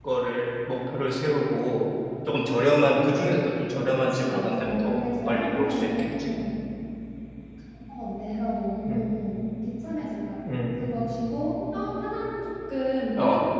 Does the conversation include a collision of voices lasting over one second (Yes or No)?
Yes